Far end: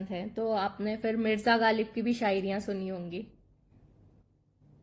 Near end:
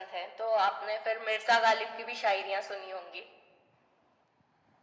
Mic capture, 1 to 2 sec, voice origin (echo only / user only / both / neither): echo only